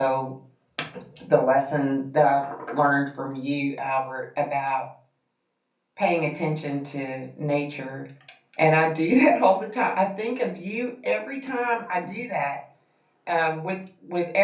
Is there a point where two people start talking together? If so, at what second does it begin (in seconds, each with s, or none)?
none